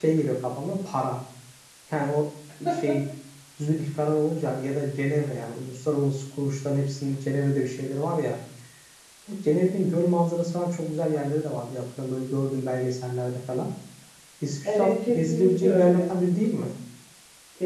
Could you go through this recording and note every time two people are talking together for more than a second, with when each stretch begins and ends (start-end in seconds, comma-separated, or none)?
14.6-16.1